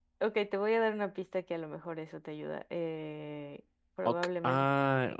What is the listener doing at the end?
taking over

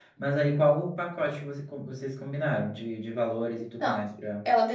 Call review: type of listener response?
taking over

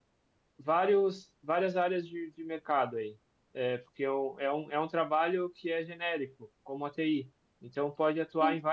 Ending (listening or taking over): listening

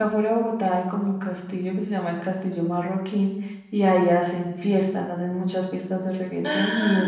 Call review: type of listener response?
listening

